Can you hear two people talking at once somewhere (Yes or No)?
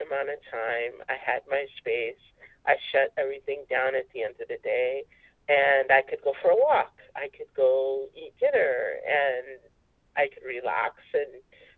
No